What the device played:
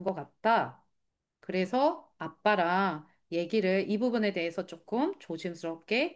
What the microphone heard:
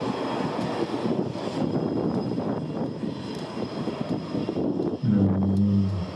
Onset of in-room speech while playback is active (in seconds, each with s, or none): 5.0 s